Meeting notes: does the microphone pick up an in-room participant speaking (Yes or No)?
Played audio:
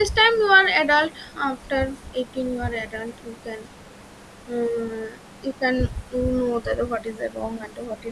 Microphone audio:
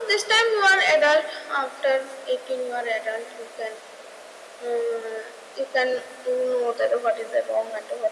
No